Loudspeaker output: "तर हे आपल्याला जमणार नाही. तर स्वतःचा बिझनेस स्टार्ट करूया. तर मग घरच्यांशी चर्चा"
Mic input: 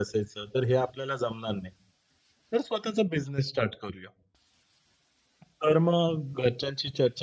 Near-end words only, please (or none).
none